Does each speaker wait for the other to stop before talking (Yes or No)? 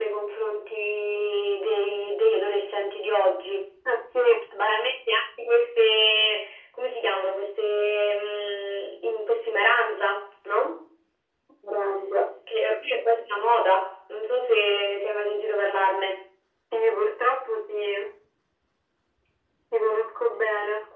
Yes